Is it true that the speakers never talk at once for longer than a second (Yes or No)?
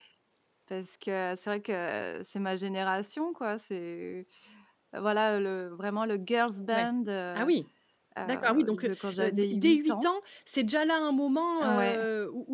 No